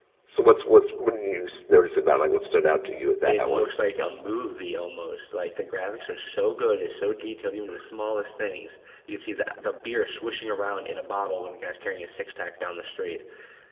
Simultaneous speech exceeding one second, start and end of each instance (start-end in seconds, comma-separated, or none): none